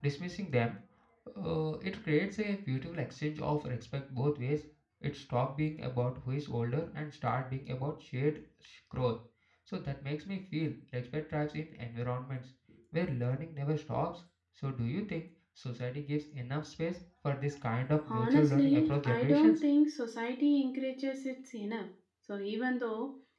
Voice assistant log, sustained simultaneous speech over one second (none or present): present